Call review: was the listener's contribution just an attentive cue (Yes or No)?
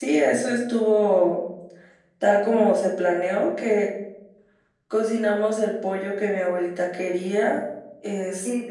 No